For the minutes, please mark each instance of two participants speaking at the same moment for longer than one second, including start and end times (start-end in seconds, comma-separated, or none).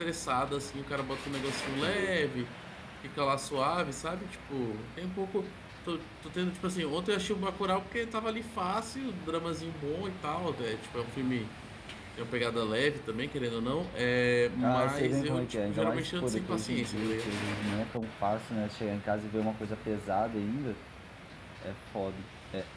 14.6-17.3